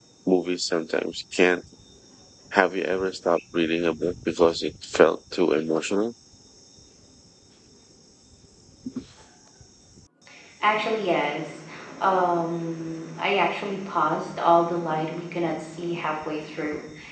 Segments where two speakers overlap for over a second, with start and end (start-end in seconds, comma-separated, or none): none